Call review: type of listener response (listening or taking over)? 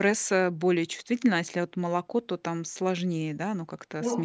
listening